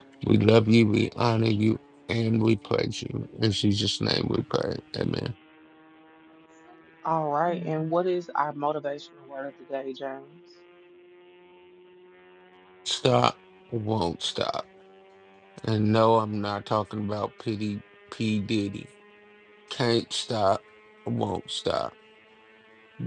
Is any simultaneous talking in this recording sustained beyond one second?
No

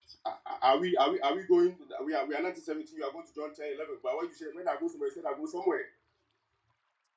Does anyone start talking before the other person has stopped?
No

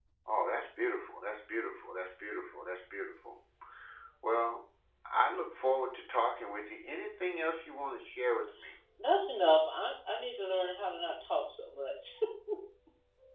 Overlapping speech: No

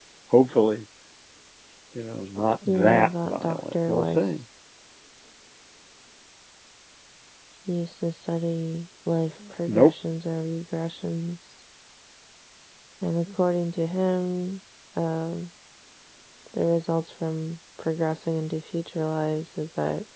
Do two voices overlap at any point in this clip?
Yes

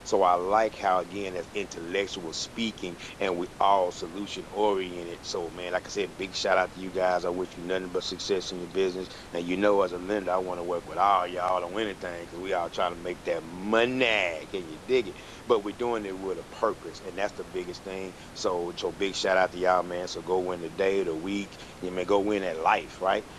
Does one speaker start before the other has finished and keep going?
No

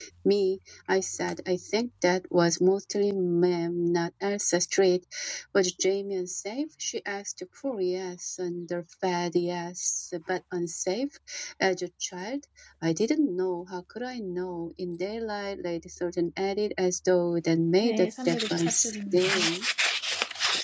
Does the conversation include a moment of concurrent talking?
Yes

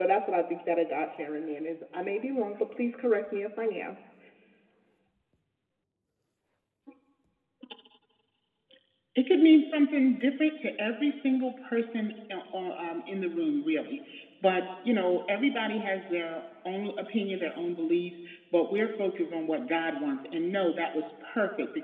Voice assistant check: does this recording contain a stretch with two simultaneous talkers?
No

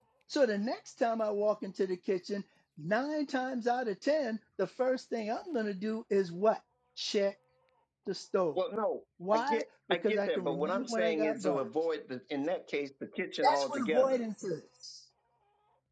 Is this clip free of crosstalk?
No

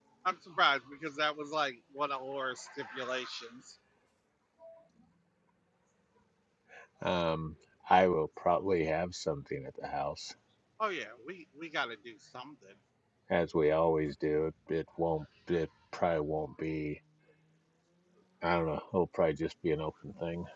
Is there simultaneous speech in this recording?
No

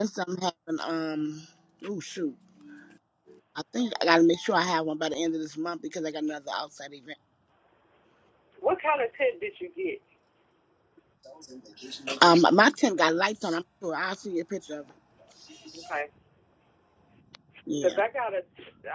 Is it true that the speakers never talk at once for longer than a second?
Yes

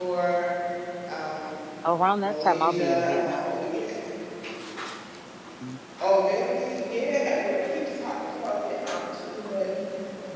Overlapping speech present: Yes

